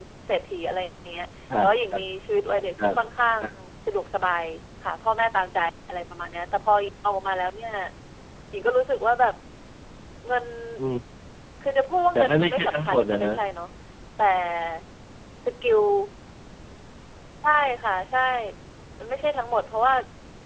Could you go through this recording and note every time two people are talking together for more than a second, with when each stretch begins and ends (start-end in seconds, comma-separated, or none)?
12.2-13.4